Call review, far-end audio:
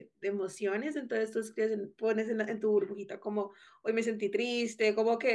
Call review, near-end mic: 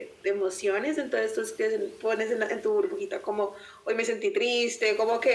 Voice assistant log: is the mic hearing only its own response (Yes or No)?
Yes